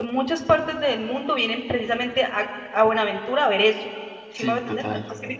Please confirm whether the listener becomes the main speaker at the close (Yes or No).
No